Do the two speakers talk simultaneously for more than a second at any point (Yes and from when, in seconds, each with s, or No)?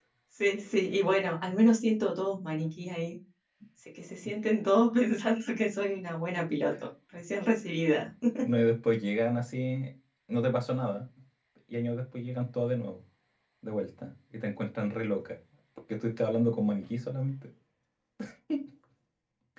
No